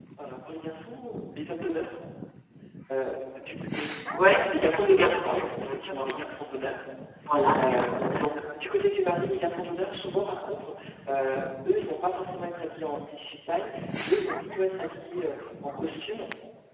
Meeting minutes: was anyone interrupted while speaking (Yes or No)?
Yes